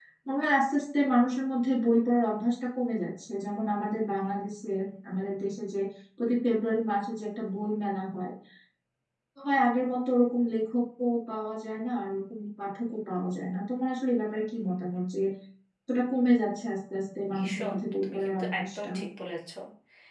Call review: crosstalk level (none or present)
present